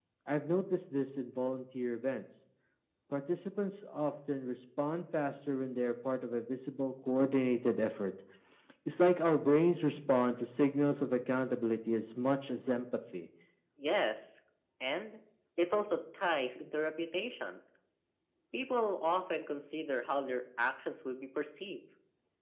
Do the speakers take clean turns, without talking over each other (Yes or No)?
Yes